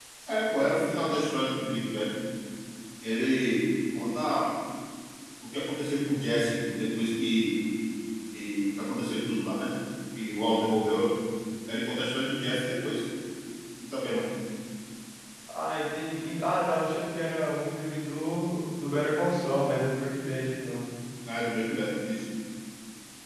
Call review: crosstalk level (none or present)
none